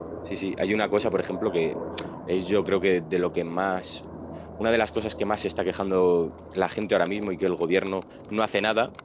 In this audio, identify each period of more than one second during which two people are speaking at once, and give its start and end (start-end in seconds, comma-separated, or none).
none